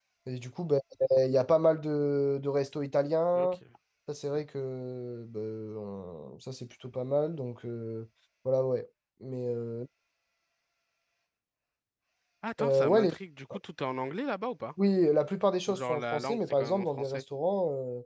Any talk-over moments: Yes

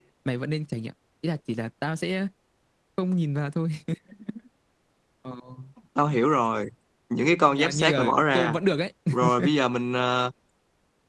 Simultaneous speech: Yes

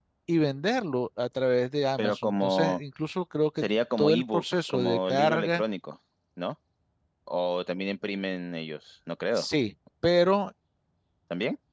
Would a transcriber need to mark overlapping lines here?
Yes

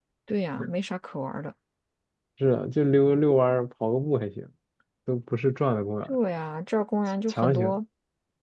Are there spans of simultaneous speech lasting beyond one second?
No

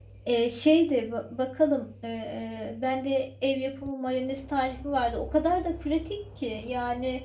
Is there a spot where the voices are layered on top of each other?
No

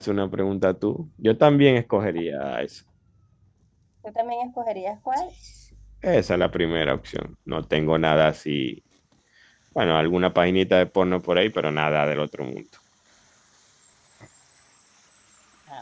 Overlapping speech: No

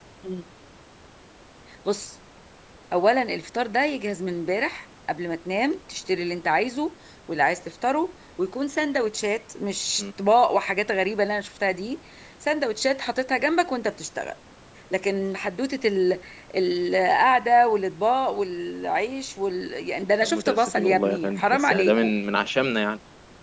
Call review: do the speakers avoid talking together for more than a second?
No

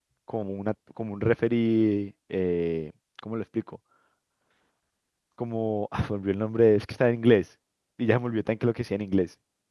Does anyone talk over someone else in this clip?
No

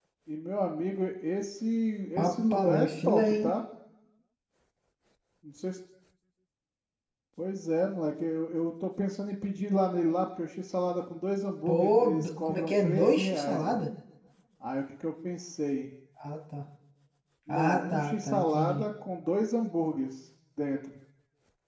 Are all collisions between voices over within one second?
No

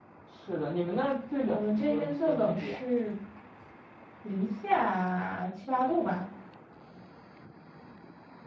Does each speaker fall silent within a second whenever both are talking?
No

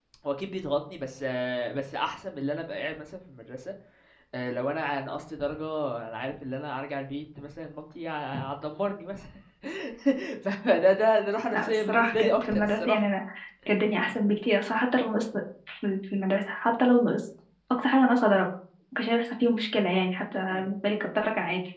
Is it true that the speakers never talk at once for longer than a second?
No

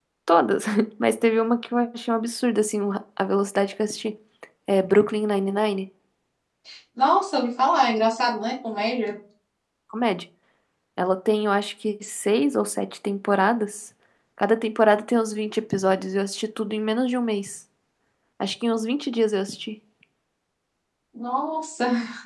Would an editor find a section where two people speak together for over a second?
No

